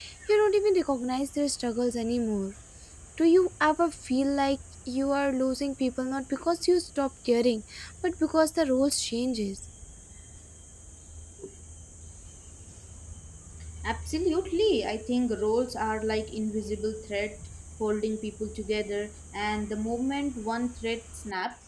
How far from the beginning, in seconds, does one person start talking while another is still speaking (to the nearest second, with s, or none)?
none